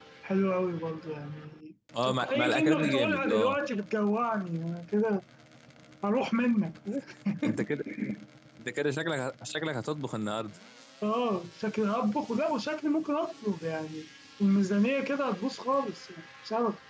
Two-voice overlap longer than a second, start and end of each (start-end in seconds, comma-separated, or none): 2.0-3.6